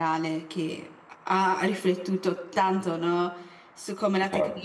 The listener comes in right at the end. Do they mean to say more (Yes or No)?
No